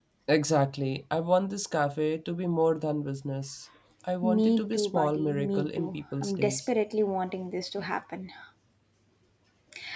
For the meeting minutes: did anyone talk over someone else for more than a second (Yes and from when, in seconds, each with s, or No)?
Yes, from 4.2 s